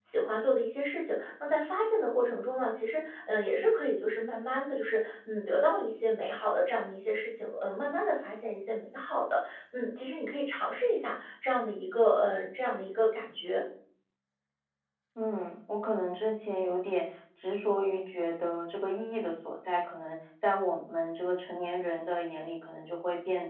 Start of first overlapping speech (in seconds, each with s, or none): none